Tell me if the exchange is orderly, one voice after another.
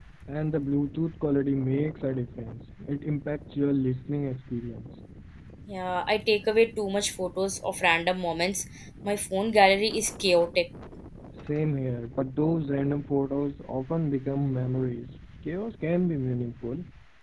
Yes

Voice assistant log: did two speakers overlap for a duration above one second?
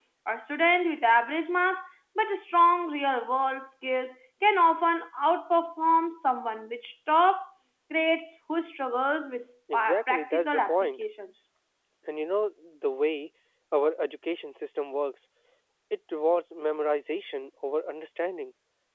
Yes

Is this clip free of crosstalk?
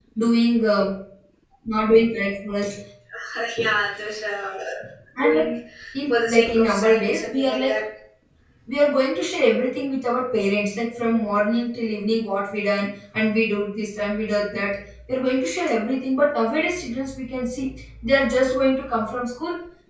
No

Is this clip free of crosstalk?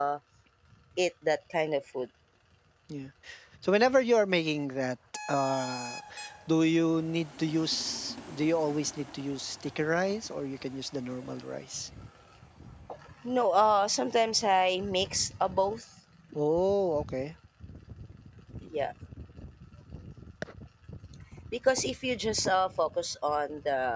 Yes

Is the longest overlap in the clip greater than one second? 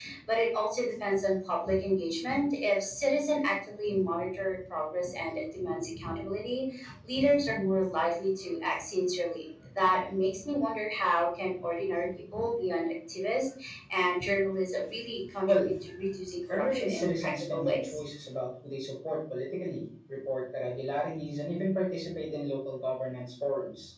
Yes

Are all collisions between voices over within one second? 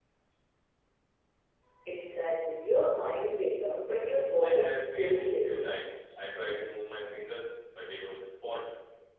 No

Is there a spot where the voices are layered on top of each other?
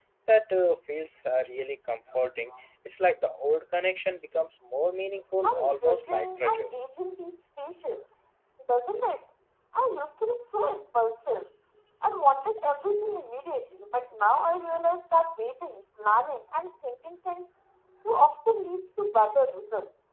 Yes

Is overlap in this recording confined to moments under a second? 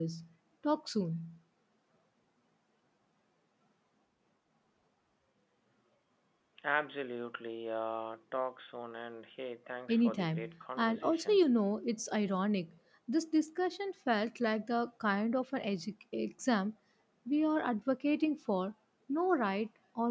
No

